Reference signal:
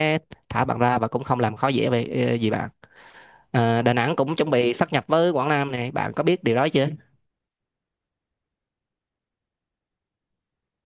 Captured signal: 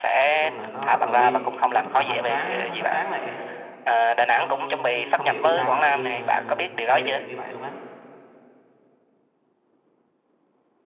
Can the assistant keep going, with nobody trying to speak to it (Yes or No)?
No